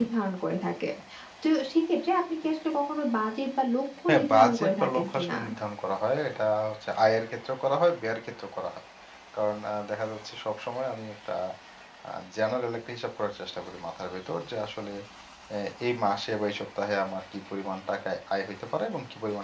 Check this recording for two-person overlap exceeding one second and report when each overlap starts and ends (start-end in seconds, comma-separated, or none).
4.1-5.4